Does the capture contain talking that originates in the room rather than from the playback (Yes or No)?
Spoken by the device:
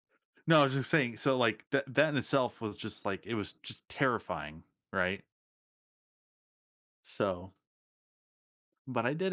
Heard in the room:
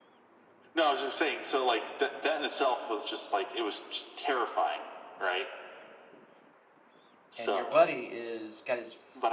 Yes